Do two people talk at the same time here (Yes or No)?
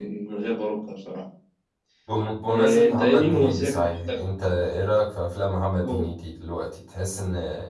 Yes